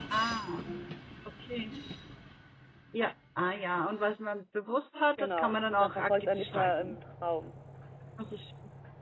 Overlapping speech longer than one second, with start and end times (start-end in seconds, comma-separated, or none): 5.2-7.0